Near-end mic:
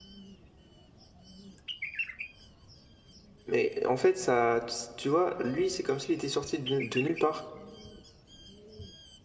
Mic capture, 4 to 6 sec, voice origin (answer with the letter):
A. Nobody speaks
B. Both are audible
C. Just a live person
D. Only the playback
C